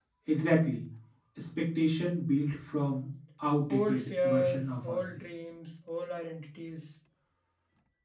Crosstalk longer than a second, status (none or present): present